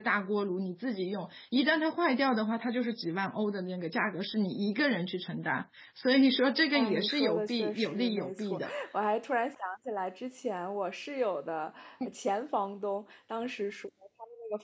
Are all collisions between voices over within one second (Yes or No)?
No